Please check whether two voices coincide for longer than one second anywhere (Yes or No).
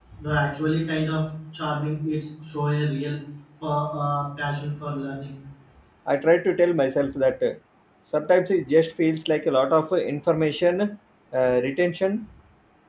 No